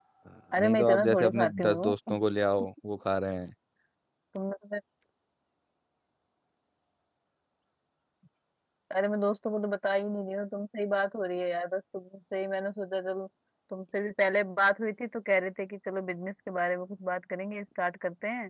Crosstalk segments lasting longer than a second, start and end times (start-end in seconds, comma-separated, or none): 0.6-2.2